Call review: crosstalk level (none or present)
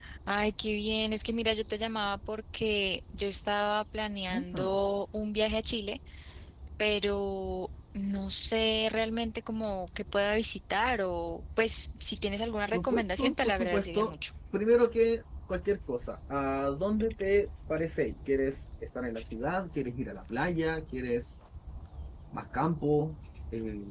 present